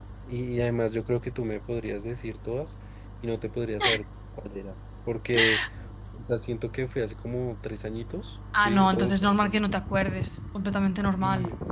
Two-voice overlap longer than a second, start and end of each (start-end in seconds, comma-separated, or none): 8.6-9.8